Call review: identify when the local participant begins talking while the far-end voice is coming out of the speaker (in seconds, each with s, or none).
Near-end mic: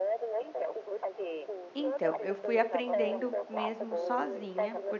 1.8 s